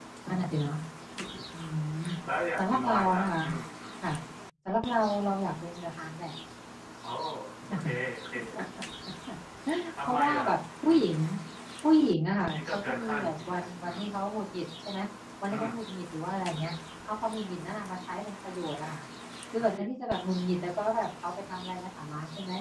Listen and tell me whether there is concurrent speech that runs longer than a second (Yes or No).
Yes